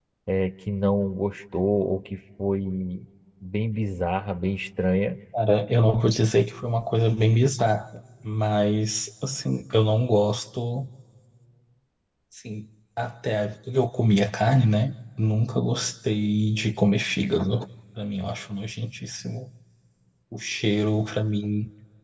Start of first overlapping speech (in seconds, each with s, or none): none